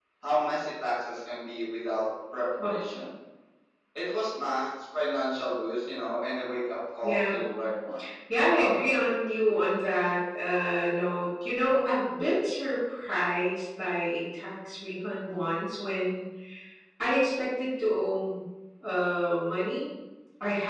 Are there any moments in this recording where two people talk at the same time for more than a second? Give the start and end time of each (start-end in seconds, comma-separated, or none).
none